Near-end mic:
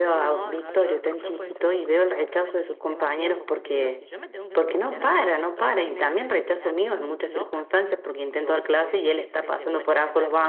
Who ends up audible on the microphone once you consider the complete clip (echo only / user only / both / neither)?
both